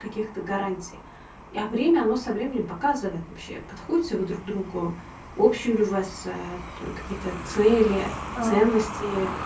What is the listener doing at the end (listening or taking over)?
listening